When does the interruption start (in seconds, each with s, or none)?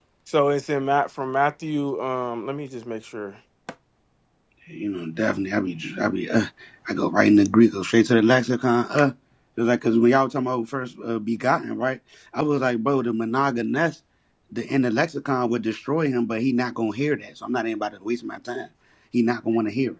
none